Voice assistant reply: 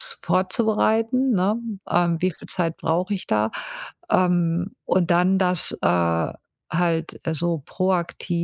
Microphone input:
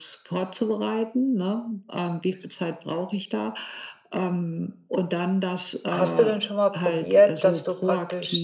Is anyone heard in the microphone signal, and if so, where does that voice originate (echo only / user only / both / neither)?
both